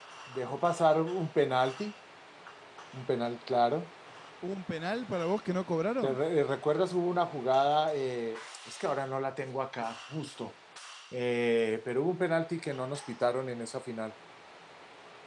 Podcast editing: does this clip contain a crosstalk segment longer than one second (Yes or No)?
No